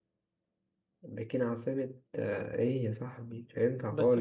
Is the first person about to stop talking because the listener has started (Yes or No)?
Yes